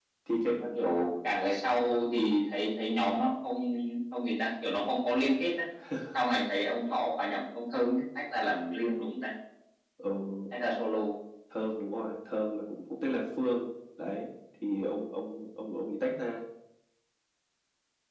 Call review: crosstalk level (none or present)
none